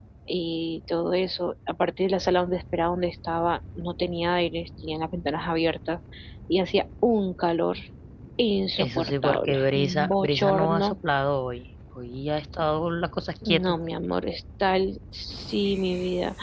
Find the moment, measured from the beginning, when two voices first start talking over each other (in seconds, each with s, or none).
8.8 s